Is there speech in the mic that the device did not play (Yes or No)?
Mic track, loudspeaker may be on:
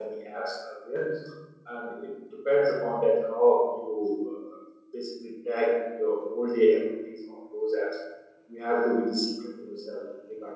Yes